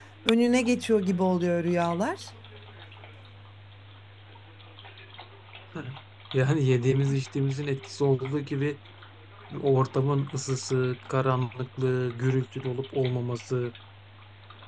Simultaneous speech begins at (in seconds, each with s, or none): none